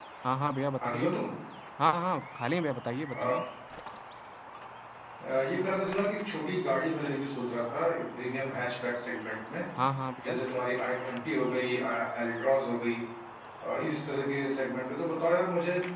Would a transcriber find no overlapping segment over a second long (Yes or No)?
Yes